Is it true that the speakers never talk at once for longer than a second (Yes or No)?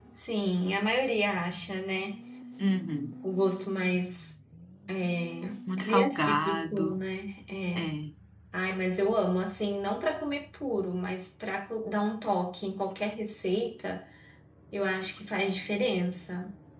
No